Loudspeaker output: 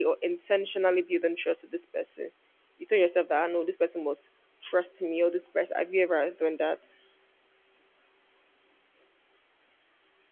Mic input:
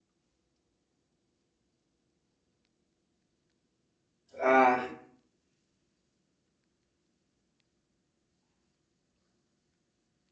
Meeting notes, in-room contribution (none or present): present